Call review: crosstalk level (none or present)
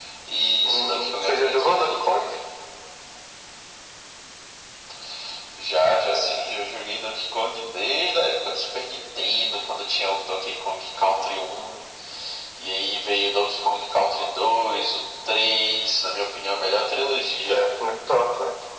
present